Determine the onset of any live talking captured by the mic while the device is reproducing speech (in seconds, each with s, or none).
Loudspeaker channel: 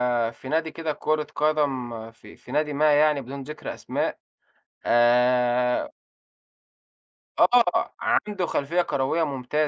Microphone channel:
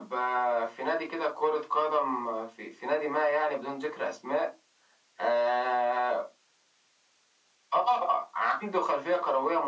none